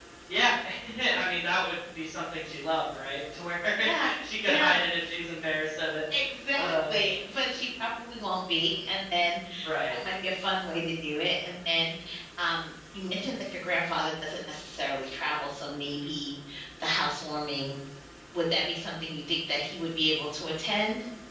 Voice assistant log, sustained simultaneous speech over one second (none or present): none